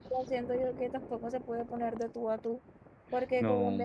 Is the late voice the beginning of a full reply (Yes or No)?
No